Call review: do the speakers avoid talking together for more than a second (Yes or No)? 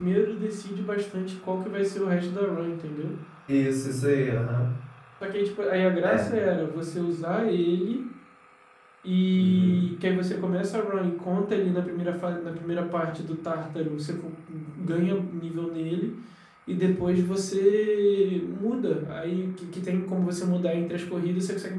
Yes